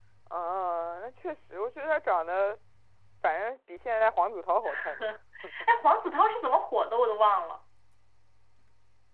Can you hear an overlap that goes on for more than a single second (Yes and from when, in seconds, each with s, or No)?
No